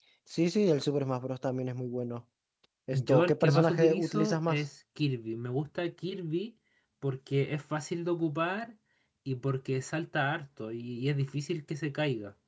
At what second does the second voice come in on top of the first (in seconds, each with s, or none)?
2.9 s